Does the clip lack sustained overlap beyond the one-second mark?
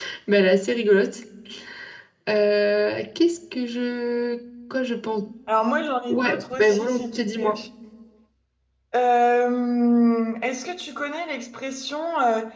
No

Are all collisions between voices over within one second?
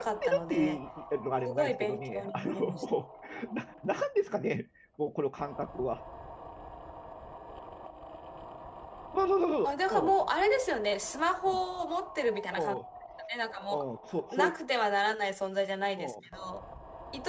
No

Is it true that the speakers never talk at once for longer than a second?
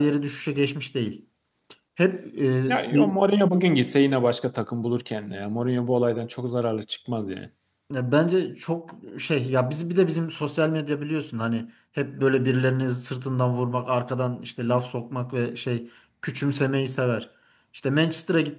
Yes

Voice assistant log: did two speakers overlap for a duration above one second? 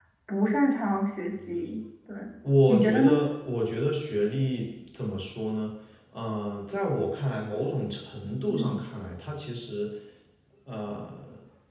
No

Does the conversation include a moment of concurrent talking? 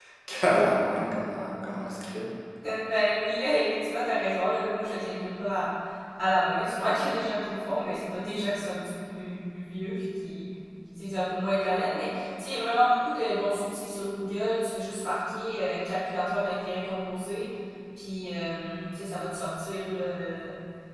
No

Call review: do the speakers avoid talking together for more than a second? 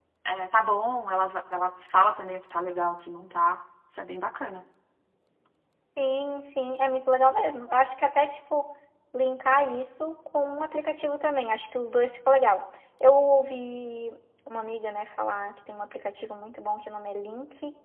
Yes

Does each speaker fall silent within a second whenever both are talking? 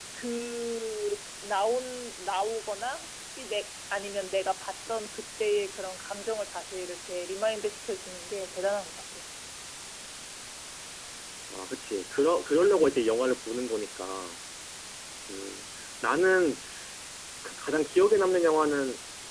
Yes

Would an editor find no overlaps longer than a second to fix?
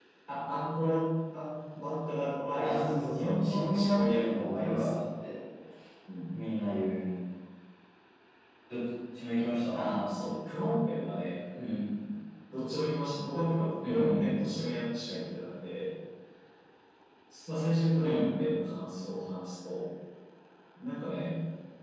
No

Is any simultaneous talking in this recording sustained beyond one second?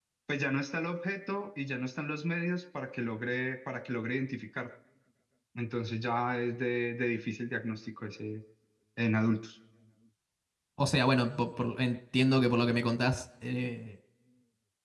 No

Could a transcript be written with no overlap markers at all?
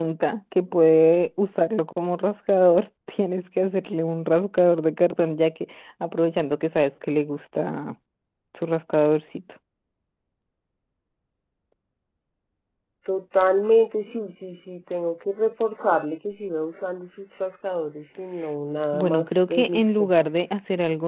No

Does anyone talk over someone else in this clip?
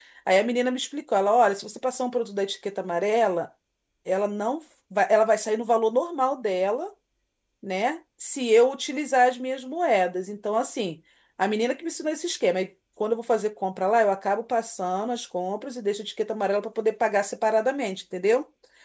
No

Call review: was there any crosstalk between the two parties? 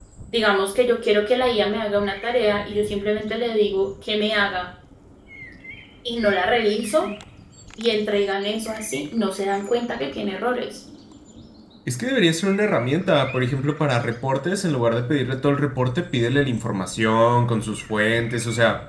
No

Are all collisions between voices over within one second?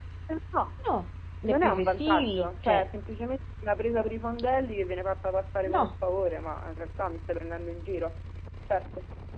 No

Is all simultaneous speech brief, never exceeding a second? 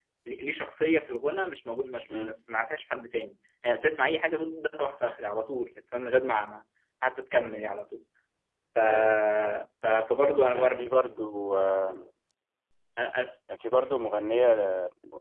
Yes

